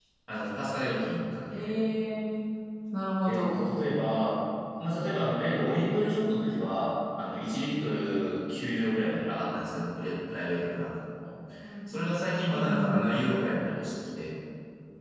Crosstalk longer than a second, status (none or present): none